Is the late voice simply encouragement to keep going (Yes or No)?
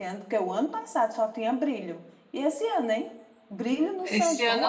No